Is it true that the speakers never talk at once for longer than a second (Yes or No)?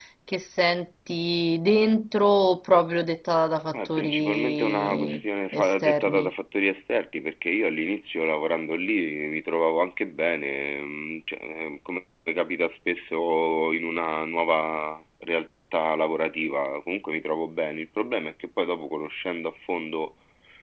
No